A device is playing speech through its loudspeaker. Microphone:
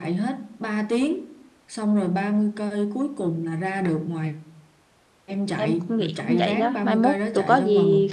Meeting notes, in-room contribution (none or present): present